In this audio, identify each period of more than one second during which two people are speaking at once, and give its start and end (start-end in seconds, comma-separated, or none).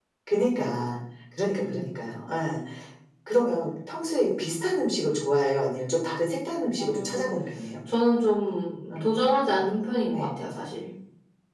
none